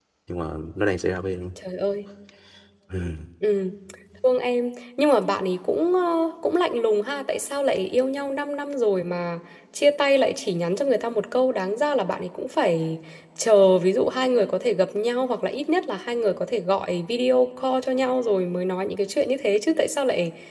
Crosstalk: none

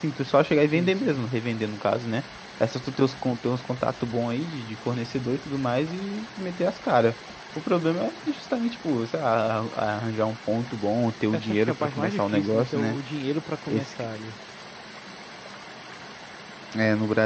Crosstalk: present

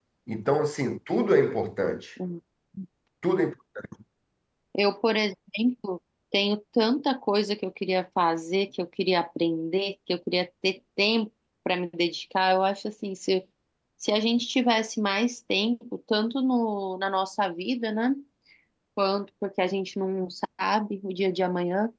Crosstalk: none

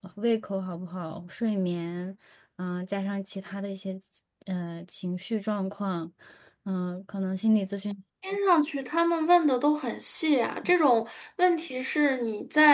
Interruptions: none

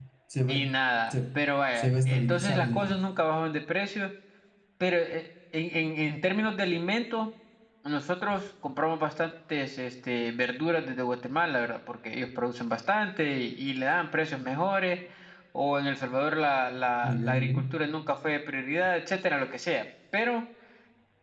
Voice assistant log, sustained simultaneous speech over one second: present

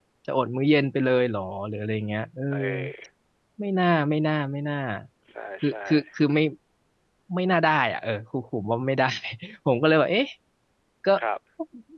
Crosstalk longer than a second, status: none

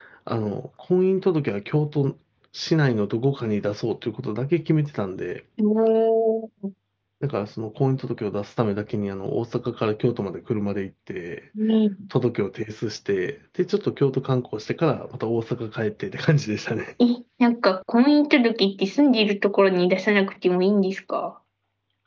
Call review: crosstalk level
none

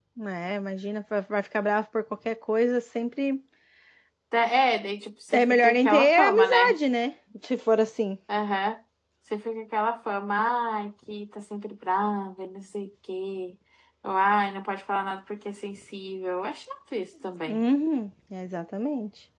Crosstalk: present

